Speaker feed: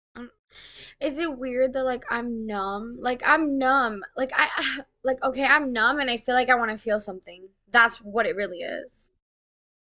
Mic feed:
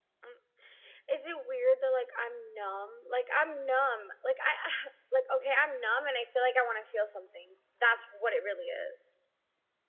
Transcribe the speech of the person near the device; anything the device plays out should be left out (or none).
none